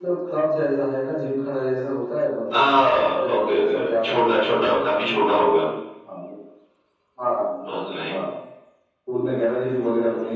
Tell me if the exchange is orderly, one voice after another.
No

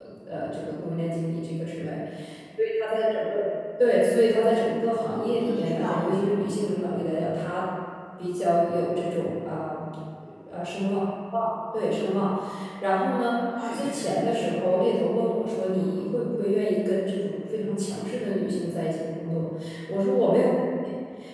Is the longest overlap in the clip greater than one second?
Yes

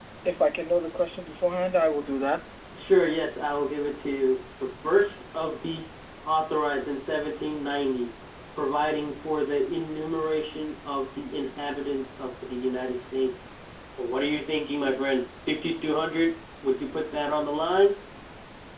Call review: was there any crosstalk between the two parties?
No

